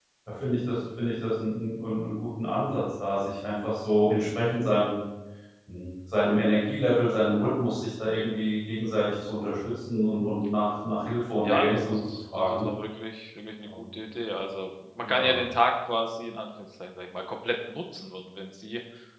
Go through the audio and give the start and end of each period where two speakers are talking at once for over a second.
11.4-12.7

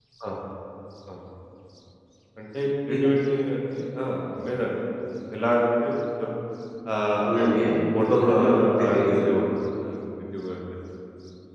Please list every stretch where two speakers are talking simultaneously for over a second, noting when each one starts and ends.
7.2-9.1

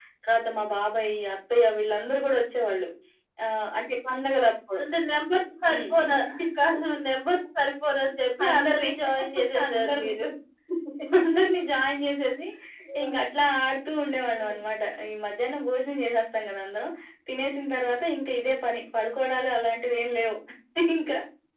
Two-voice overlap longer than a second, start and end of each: none

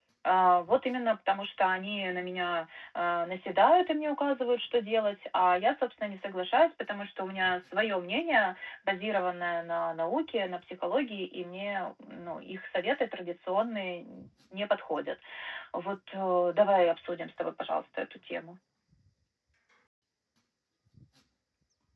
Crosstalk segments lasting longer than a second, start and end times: none

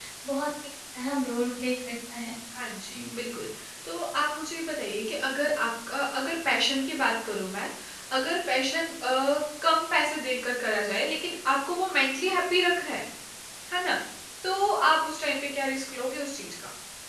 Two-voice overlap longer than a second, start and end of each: none

